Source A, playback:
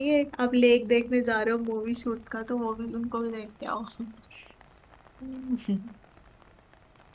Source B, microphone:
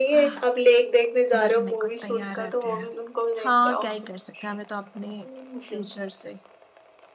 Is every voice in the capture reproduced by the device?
No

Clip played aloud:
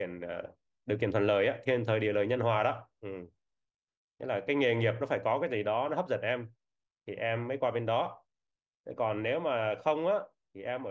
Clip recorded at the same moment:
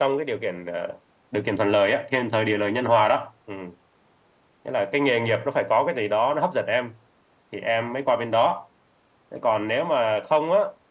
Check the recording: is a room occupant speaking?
No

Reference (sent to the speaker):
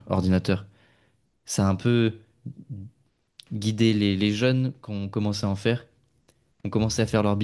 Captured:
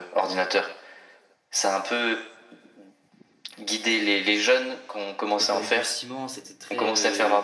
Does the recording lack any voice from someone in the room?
No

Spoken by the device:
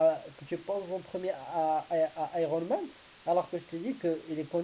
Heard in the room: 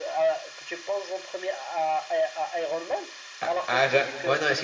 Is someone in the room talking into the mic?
Yes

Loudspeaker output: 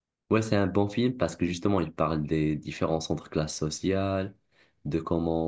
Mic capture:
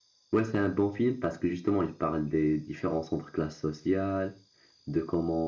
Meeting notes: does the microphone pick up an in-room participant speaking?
No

